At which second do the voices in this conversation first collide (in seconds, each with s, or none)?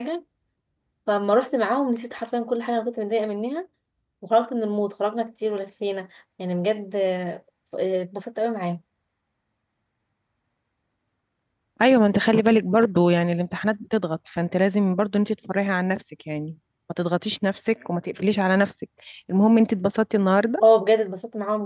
none